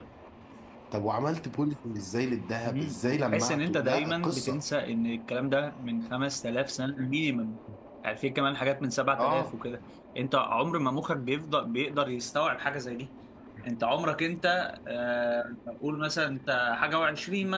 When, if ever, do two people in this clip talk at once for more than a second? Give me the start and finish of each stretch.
2.6-4.6

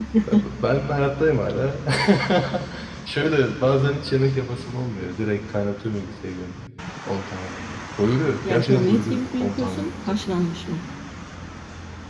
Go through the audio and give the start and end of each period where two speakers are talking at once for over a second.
8.5-10.2

